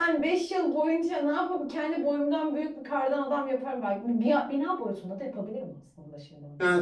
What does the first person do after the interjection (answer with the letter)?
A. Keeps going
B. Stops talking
B